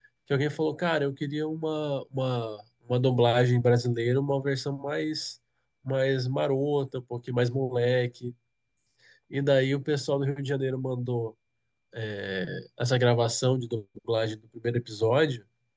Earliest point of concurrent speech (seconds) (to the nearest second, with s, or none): none